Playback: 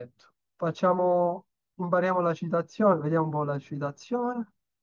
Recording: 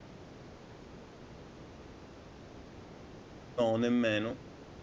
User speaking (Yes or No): Yes